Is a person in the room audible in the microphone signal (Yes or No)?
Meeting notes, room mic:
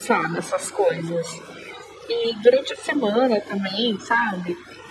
No